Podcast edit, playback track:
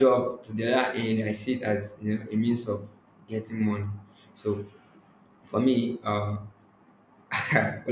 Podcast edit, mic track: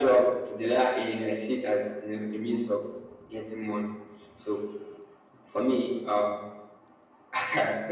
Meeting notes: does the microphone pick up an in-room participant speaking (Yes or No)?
No